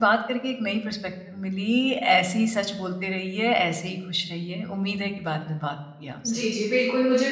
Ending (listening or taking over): taking over